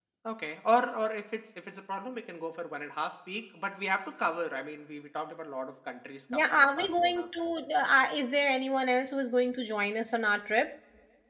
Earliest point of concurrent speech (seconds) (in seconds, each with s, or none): 6.3 s